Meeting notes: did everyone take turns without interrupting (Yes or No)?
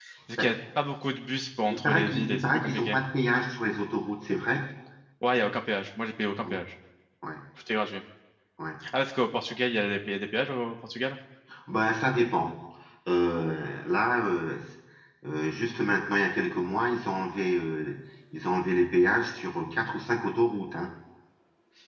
No